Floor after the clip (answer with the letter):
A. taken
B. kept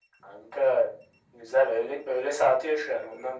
A